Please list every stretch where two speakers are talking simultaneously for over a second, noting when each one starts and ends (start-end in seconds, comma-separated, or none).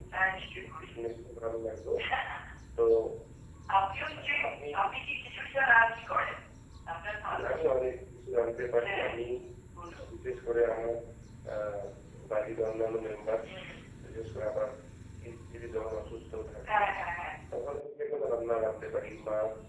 none